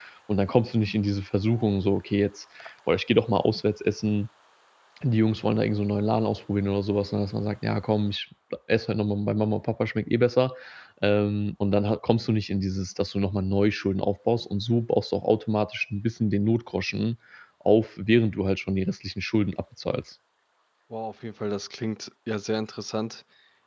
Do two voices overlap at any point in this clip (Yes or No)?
No